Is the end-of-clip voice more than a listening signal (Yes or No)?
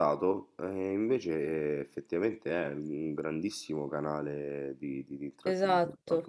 Yes